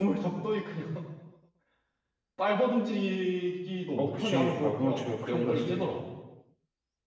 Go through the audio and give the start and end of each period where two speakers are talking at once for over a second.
4.0-5.9

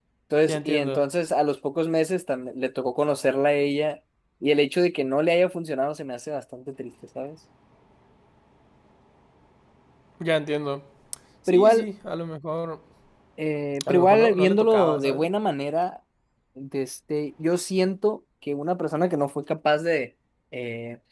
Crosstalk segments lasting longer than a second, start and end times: 13.9-15.2

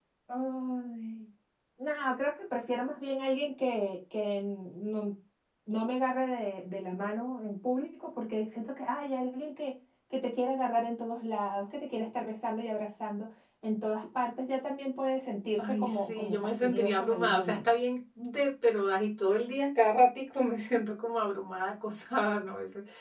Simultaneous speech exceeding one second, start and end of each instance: 15.6-17.6

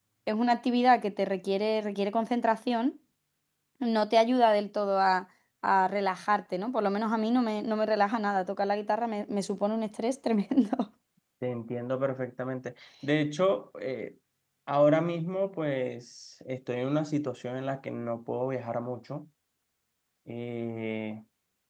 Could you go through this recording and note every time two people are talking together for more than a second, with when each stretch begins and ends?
none

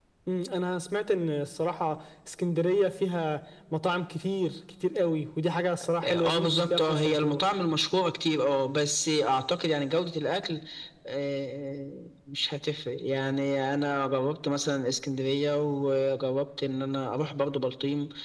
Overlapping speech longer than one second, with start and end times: 6.0-7.4

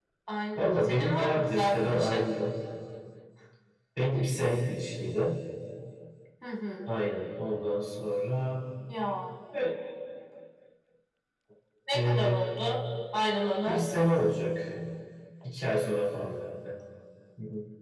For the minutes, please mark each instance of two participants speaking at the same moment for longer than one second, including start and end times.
0.6-2.2

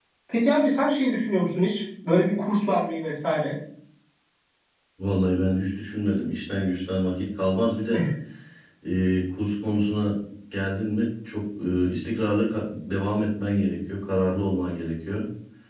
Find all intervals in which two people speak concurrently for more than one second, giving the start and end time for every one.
none

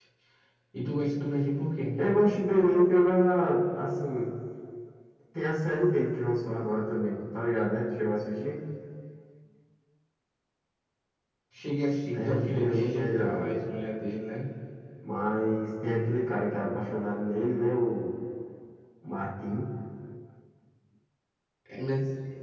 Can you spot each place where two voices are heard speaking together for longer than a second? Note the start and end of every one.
12.1-13.5

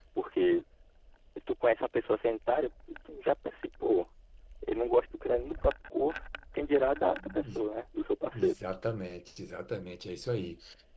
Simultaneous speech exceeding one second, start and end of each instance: none

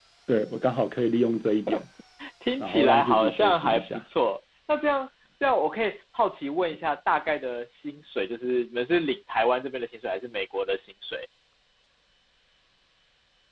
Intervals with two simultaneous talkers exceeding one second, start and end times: 2.6-4.0

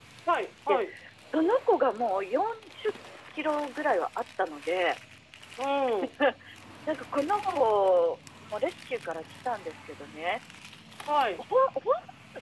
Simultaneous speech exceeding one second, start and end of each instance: none

